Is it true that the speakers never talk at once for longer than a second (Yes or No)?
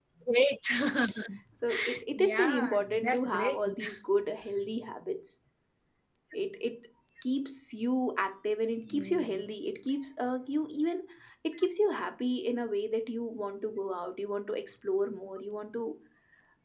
No